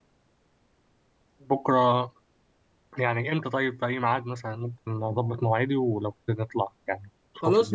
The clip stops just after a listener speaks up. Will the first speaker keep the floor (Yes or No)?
No